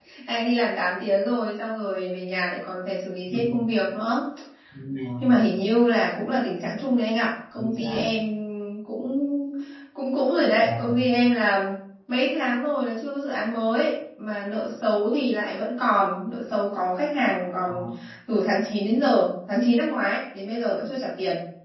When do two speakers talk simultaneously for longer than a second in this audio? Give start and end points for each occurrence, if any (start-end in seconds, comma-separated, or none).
none